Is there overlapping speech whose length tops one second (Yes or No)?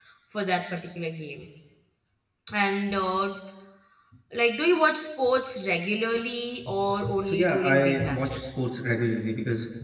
Yes